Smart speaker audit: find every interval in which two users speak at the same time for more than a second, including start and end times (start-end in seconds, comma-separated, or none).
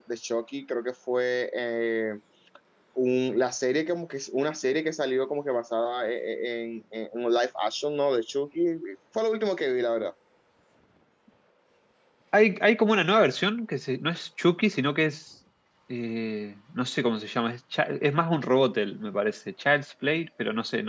none